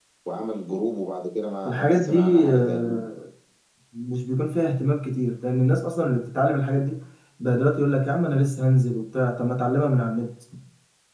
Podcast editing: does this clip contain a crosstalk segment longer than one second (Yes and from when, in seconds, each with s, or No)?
Yes, from 1.6 s